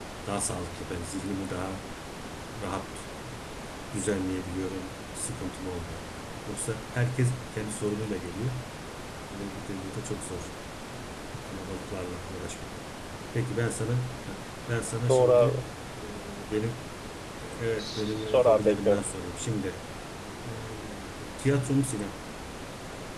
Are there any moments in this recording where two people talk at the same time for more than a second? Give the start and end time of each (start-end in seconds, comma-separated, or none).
17.8-19.0